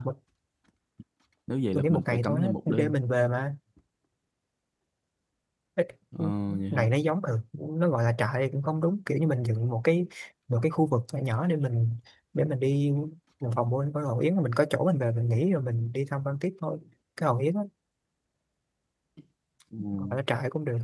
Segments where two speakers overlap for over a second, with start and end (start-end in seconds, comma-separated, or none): 1.7-2.9